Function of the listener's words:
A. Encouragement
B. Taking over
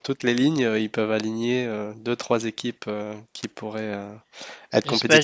B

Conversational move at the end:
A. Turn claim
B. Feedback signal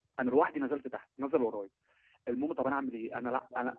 B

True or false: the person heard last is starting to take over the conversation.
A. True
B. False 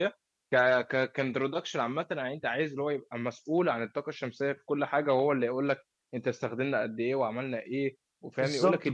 A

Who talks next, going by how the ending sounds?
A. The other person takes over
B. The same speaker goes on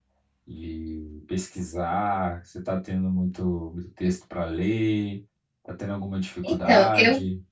A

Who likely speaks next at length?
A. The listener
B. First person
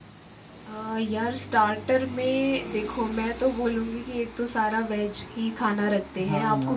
A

